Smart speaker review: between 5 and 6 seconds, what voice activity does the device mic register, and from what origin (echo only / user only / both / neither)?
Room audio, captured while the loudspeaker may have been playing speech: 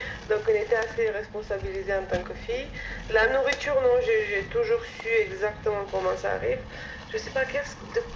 echo only